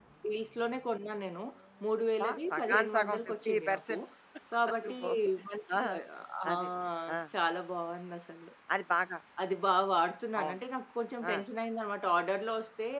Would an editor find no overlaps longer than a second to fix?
No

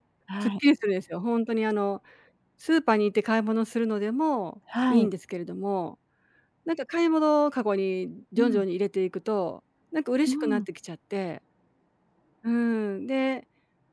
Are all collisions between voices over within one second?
Yes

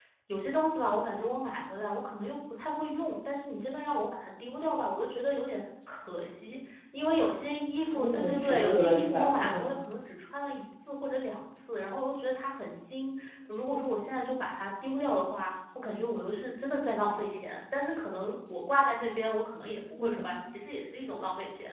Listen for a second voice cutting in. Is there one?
Yes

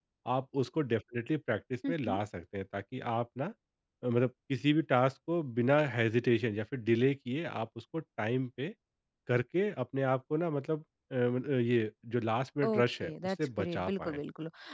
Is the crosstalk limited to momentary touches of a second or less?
No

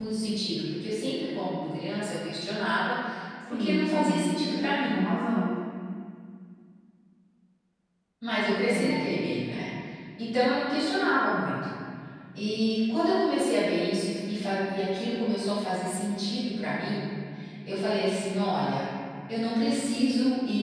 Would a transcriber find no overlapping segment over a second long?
No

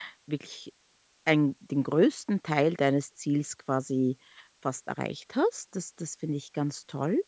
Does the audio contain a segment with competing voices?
No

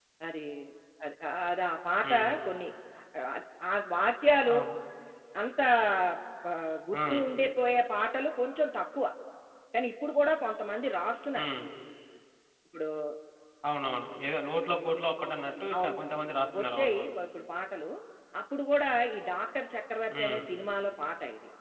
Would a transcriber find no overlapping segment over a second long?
Yes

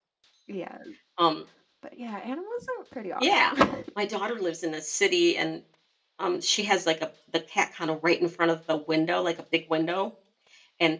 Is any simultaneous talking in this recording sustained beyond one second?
No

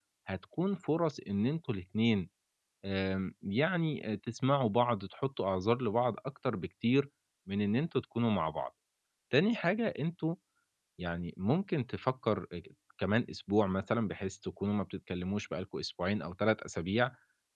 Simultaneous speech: No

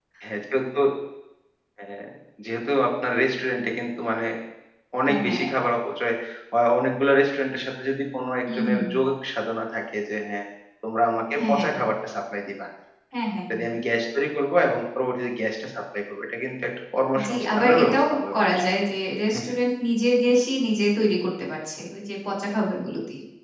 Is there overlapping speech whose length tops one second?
Yes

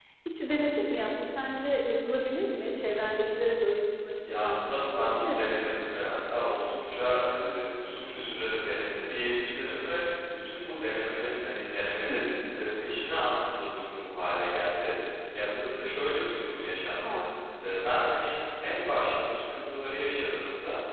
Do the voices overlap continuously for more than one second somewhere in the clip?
Yes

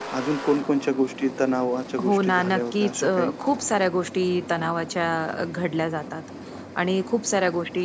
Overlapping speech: Yes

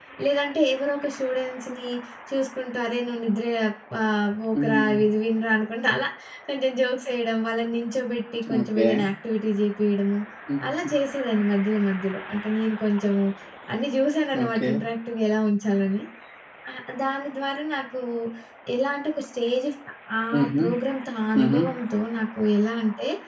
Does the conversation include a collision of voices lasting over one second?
No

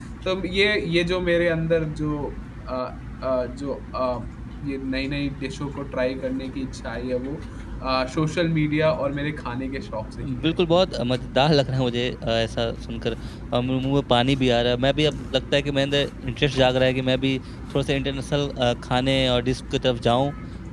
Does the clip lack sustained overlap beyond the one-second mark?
Yes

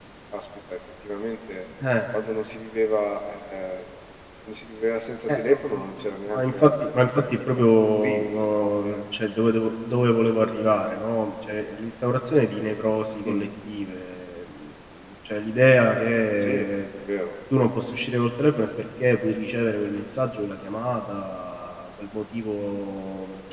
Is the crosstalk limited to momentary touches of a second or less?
No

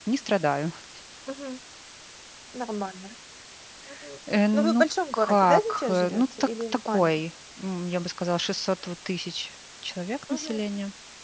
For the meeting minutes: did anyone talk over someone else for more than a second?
Yes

